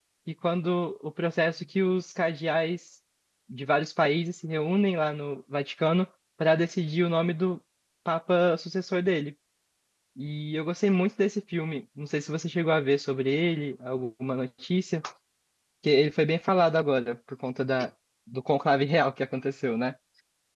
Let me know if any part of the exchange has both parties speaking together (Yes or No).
No